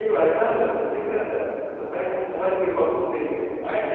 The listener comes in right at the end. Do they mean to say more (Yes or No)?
Yes